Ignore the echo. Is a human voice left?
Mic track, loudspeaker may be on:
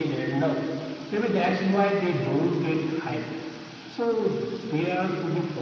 No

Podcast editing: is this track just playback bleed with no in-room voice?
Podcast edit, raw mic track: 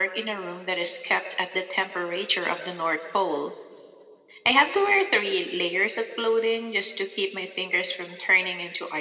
Yes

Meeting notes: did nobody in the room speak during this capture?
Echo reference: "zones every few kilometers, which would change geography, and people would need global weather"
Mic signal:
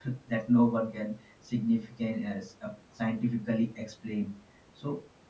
No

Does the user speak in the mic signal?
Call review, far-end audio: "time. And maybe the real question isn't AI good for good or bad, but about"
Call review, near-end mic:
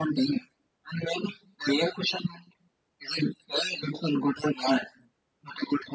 No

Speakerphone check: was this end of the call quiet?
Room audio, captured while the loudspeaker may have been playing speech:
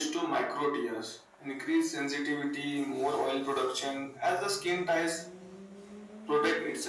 Yes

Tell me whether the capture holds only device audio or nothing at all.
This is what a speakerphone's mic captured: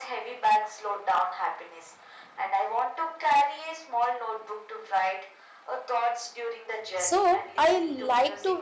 No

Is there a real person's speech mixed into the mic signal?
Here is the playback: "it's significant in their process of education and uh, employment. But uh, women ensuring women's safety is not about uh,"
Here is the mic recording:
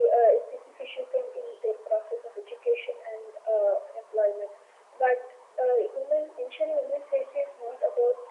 No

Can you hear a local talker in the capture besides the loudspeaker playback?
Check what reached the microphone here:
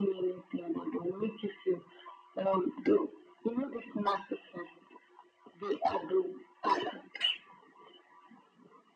No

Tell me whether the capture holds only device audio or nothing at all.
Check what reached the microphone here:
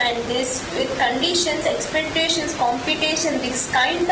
Yes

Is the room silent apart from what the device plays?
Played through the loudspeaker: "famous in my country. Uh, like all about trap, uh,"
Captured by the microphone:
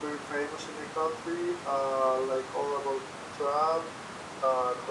Yes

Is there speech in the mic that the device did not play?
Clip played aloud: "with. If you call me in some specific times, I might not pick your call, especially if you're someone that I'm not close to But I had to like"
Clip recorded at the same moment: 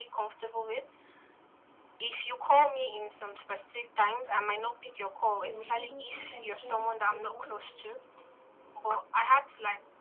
Yes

